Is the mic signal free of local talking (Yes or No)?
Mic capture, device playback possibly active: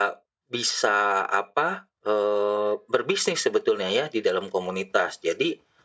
Yes